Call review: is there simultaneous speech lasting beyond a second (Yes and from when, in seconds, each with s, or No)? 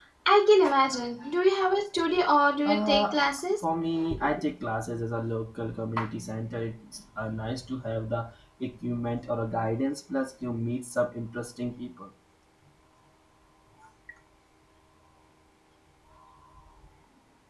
No